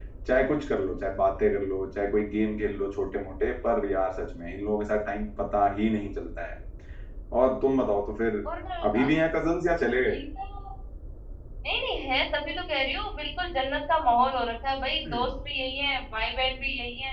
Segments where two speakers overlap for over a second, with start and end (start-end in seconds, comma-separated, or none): none